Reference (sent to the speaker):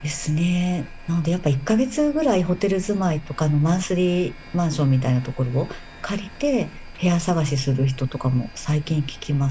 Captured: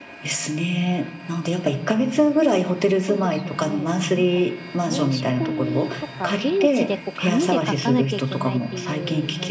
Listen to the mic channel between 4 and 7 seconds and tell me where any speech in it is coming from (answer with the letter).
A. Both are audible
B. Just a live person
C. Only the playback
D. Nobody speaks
A